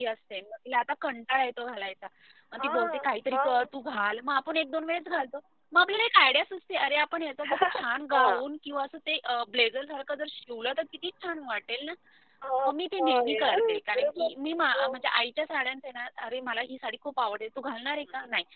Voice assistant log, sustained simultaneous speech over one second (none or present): present